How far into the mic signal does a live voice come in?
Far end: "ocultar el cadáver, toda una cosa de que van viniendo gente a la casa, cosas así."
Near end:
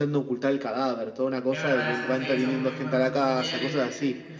1.5 s

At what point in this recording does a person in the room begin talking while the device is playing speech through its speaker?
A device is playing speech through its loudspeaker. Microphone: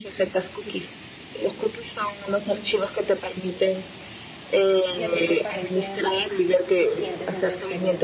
4.9 s

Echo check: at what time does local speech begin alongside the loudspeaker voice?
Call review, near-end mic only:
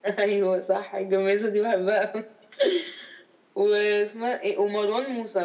none

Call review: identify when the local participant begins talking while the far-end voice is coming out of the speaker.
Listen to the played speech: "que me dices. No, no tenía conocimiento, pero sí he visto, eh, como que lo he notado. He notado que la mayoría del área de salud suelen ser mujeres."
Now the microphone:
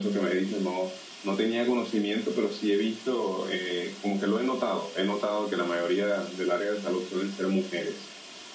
none

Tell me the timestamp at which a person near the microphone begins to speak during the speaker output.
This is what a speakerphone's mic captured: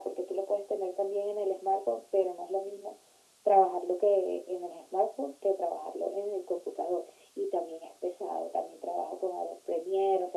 none

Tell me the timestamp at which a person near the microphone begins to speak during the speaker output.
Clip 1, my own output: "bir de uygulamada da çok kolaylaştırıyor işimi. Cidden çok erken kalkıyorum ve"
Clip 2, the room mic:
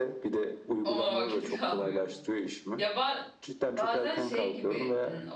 0.8 s

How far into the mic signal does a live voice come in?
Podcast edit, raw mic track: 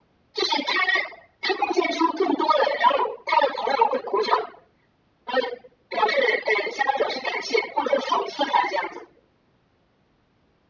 none

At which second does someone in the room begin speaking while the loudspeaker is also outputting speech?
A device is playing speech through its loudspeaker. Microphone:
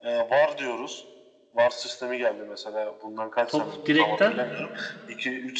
3.5 s

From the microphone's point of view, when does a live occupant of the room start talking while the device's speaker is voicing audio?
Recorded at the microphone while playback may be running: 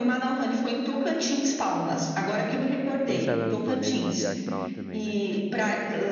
3.0 s

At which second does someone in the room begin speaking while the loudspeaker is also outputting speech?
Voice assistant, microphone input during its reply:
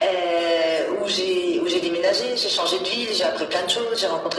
none

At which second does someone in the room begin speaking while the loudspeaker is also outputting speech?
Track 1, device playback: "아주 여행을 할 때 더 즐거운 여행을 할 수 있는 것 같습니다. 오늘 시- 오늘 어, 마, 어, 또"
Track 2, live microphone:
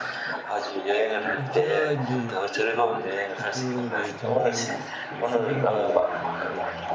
1.3 s

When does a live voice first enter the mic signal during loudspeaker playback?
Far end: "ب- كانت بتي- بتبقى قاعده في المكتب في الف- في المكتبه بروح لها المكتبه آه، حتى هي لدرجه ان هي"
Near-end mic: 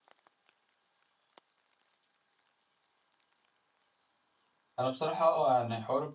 4.8 s

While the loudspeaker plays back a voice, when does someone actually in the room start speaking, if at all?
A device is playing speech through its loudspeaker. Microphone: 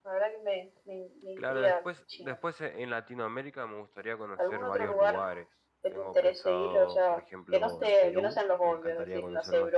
1.3 s

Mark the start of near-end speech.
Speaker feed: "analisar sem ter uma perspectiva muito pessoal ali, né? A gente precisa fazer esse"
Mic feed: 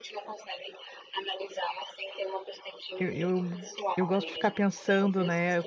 3.0 s

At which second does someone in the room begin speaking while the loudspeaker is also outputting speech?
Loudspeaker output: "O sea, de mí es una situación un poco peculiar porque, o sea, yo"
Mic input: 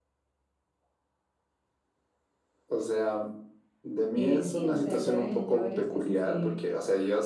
4.2 s

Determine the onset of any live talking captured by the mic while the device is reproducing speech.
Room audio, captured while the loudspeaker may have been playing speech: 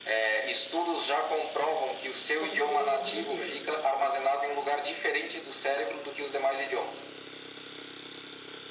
2.4 s

